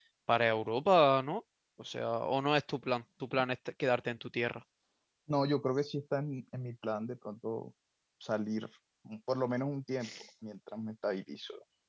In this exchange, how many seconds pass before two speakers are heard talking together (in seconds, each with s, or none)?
none